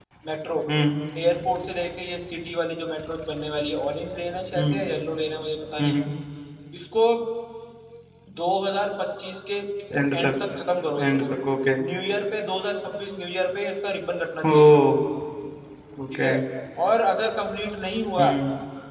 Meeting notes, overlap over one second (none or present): none